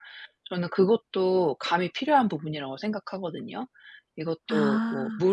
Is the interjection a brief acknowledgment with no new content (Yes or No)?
Yes